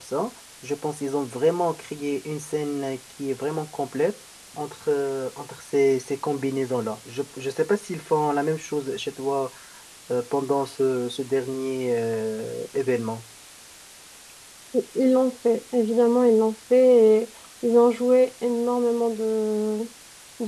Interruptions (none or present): none